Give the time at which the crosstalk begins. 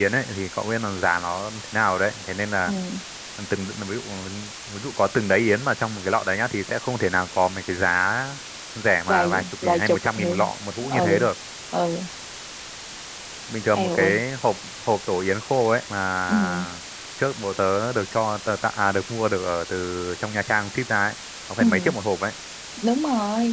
9.1 s

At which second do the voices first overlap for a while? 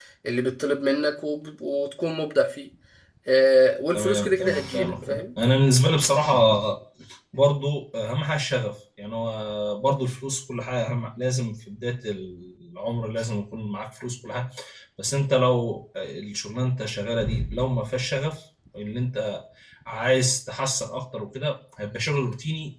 3.9 s

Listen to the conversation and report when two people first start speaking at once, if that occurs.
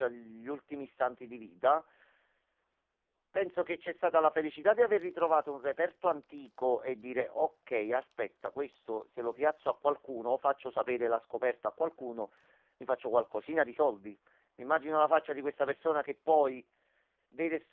none

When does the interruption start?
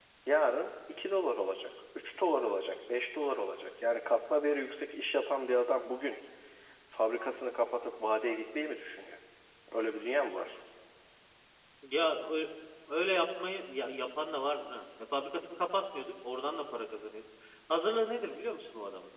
none

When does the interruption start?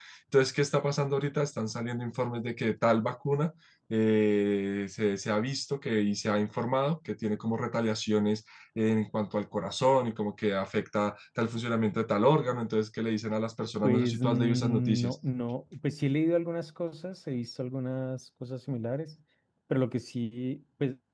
13.8 s

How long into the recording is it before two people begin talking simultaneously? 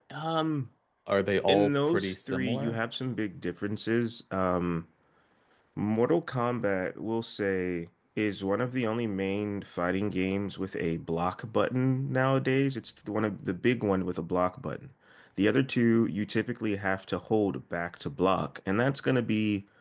1.5 s

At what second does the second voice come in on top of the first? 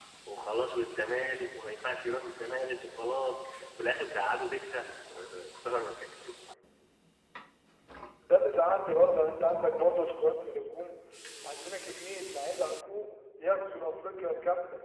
none

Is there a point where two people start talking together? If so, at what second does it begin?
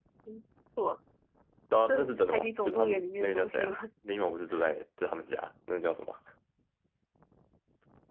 1.9 s

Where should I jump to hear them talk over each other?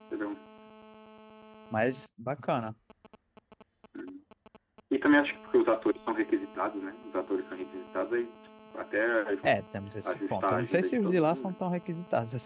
10.0 s

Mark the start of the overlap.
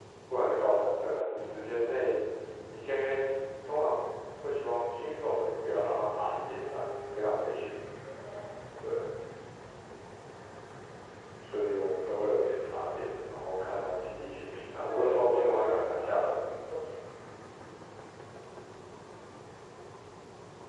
14.9 s

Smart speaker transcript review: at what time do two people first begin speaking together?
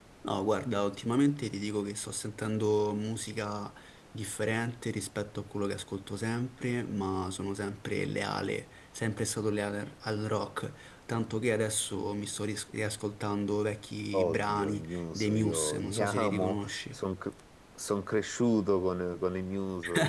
14.1 s

